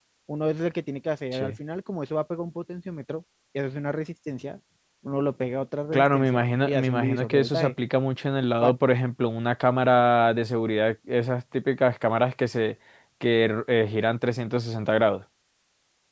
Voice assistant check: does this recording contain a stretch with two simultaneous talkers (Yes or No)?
Yes